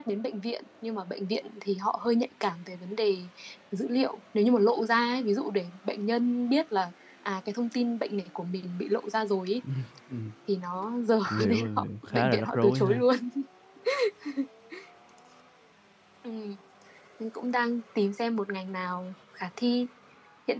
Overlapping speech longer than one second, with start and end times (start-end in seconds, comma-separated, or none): 11.3-13.0